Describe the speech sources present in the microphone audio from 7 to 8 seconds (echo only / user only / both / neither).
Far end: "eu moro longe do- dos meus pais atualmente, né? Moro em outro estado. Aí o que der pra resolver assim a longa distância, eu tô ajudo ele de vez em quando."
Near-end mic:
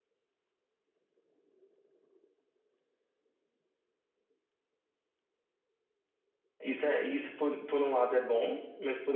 user only